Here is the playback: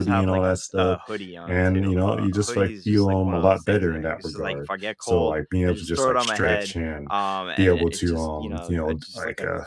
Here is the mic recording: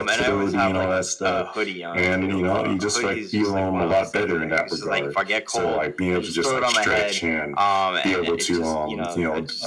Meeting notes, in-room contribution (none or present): none